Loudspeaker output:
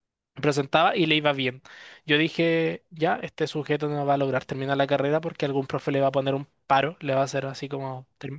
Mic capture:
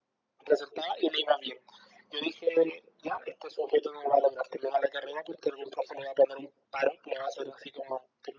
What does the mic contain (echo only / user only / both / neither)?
echo only